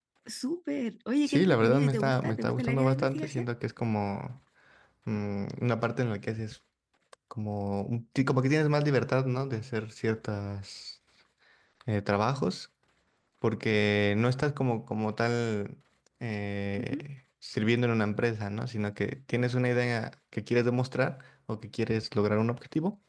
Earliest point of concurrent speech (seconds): 1 s

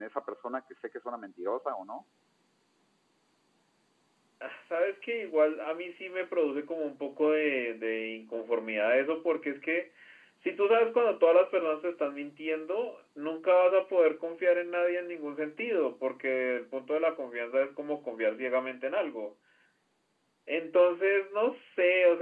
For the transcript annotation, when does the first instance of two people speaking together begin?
none

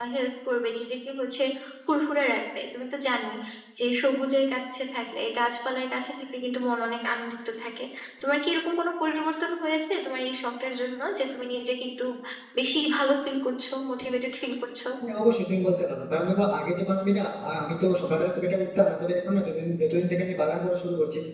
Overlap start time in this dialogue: none

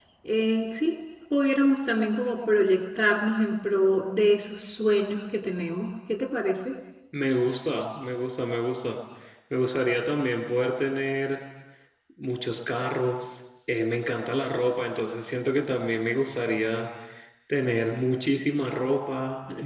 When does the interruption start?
none

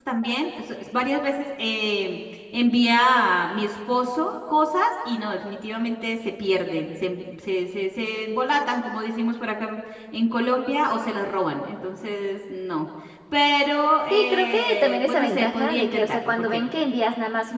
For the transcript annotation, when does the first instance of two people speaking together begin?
14 s

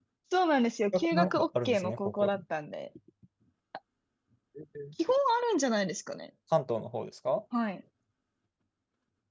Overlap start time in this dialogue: 1 s

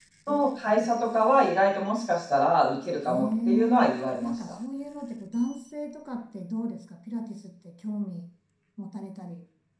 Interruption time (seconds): 3 s

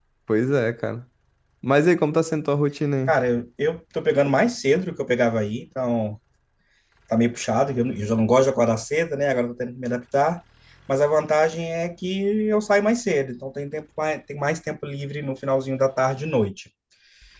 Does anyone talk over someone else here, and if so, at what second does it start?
none

